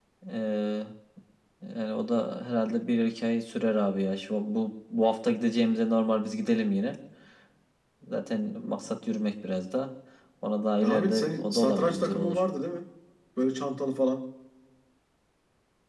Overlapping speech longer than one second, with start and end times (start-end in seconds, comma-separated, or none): 10.8-12.4